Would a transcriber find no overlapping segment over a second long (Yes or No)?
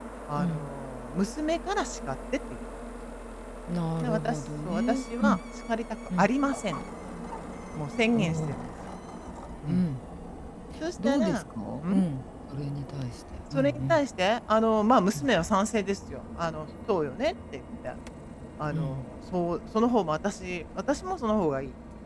No